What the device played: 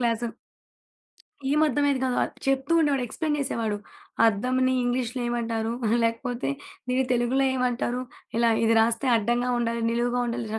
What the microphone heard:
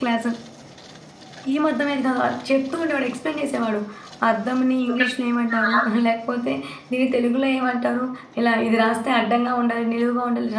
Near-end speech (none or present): present